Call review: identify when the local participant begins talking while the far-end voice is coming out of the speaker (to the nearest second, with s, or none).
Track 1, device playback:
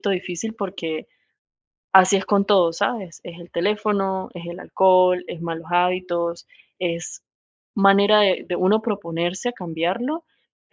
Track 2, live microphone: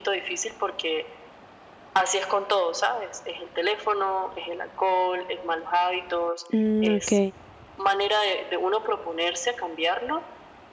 7 s